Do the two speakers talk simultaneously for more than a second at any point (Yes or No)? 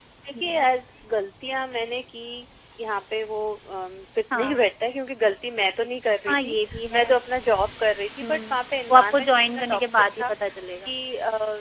Yes